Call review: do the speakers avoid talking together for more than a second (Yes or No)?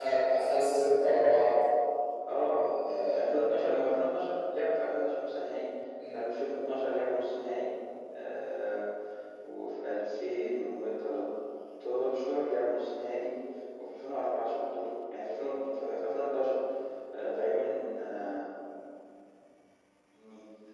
No